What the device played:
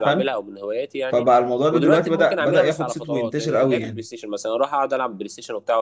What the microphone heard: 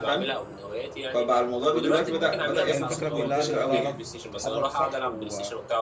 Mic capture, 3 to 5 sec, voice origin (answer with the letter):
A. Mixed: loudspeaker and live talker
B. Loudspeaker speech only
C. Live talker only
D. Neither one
A